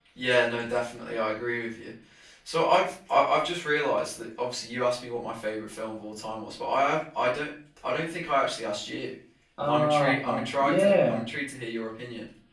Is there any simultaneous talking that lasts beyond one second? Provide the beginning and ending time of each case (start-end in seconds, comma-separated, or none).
9.6-11.2